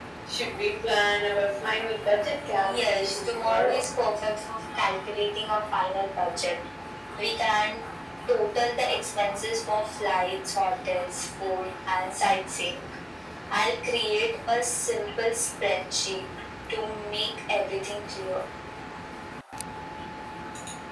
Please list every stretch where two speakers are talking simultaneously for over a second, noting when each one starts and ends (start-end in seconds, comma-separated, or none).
2.6-3.9